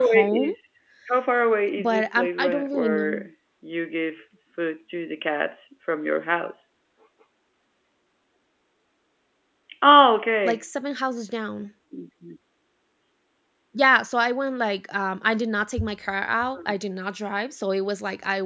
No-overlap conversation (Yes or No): No